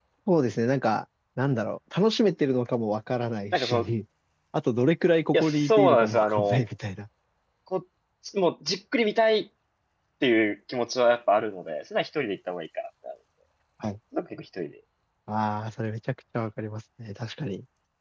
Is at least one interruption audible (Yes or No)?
Yes